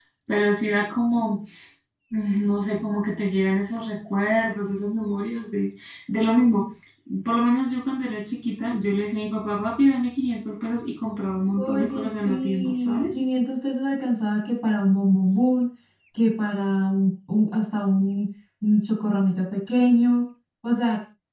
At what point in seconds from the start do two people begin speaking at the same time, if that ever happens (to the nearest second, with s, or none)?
12 s